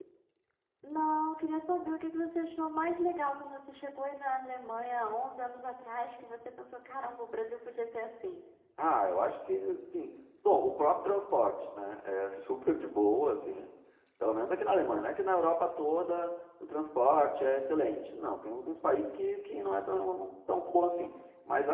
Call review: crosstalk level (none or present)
none